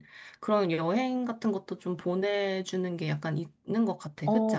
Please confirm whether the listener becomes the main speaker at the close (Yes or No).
Yes